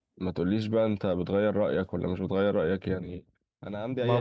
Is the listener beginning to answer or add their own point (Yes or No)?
Yes